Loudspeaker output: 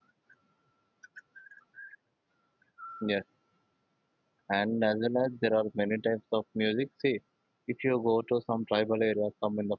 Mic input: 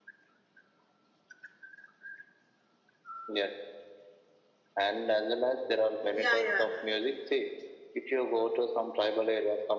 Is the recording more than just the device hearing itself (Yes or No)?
Yes